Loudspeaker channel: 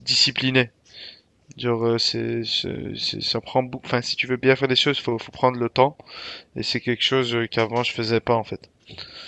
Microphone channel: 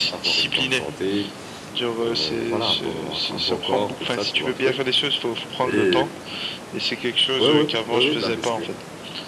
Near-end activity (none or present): present